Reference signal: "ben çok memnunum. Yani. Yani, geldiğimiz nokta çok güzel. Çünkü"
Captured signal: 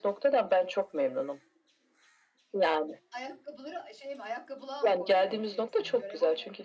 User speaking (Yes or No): Yes